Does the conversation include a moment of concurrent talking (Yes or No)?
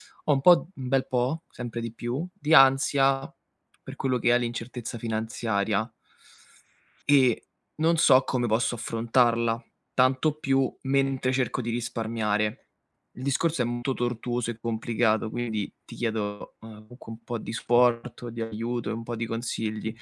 No